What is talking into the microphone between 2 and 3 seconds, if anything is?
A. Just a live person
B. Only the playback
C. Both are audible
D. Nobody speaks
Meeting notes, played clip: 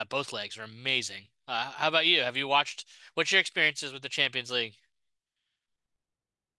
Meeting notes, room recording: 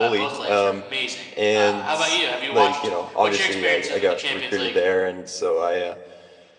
C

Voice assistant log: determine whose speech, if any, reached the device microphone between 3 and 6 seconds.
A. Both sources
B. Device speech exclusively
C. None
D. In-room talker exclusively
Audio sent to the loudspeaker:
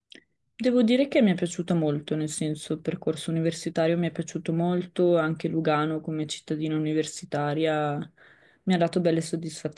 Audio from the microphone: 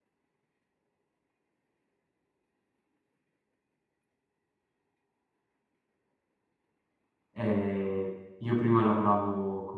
C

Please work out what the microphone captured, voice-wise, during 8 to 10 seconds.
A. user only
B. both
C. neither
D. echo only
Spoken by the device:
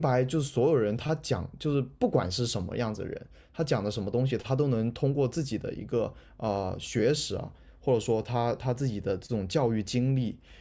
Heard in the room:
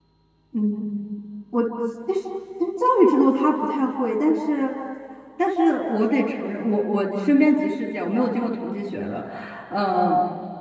A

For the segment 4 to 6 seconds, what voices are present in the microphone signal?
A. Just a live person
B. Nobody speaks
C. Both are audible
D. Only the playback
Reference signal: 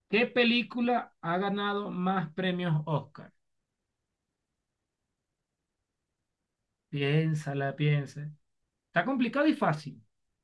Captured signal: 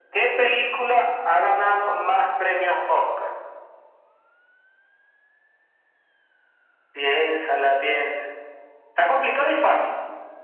B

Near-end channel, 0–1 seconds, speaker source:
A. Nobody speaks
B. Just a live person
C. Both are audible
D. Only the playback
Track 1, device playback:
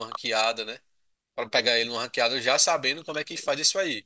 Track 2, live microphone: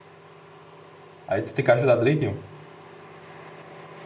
A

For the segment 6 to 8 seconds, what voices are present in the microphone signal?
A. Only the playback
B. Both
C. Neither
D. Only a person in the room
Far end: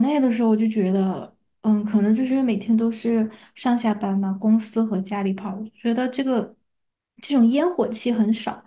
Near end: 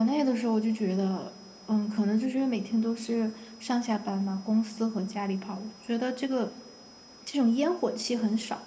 A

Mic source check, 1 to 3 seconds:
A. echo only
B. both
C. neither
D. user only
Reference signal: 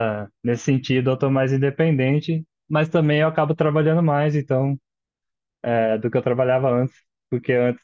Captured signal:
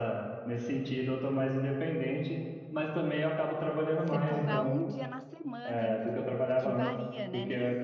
A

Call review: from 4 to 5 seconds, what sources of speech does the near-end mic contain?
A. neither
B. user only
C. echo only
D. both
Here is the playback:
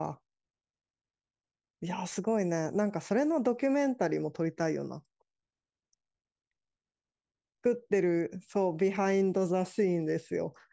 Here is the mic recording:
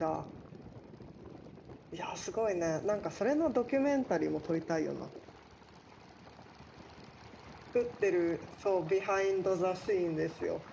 C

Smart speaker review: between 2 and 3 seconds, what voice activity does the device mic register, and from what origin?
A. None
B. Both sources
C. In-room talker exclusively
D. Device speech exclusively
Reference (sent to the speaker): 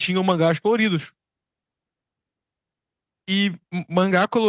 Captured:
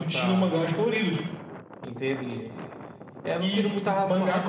C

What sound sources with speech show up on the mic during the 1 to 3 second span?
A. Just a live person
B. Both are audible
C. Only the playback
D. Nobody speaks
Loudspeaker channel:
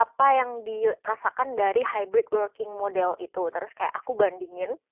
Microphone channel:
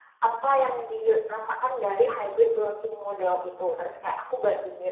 C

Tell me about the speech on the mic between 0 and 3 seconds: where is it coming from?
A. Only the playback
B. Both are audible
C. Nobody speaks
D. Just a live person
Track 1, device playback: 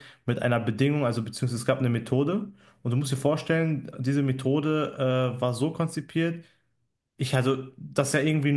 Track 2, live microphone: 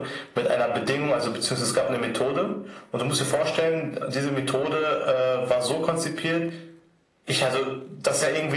A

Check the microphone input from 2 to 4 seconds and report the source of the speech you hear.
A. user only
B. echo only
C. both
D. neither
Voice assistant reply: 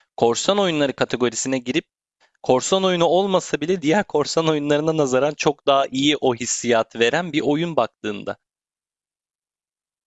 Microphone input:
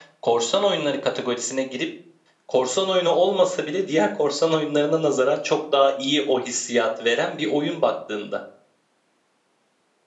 B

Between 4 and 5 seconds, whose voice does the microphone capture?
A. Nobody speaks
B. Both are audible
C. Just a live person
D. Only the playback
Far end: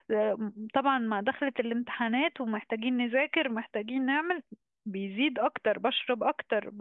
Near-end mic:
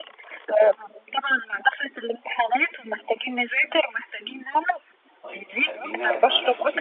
D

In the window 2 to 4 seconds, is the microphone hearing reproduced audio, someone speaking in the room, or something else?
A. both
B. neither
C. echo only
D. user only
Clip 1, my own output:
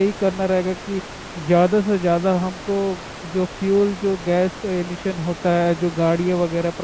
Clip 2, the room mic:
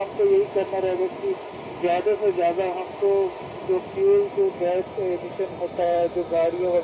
C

